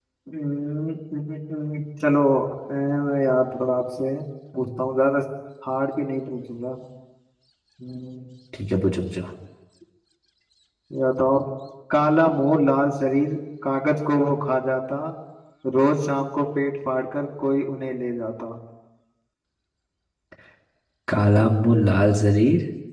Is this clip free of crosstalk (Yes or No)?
Yes